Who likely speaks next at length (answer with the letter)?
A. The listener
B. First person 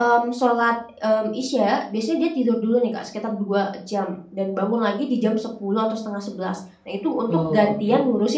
B